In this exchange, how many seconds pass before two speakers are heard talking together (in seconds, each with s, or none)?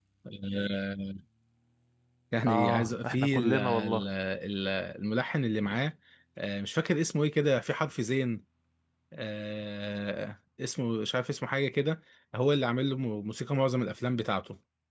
2.5 s